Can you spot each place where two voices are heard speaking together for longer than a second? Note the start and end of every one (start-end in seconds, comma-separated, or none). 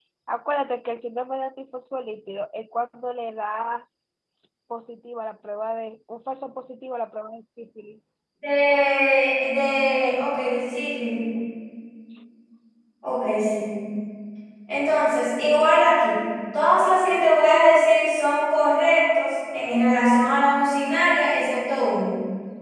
none